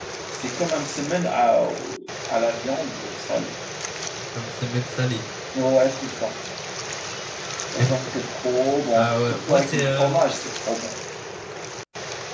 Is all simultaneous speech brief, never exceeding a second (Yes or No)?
No